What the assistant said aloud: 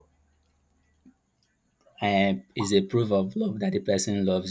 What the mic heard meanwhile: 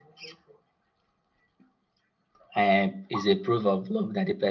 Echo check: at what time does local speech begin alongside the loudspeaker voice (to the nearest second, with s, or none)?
none